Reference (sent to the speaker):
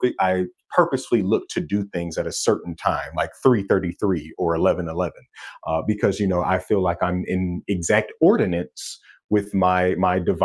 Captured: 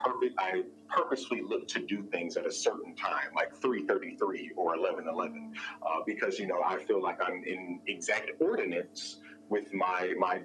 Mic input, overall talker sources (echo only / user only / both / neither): both